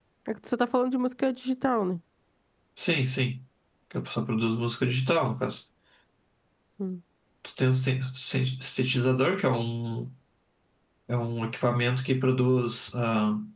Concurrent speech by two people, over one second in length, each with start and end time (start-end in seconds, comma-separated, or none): none